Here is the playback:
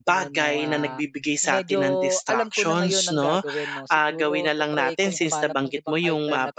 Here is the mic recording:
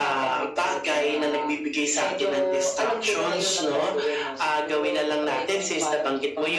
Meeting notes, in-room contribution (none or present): none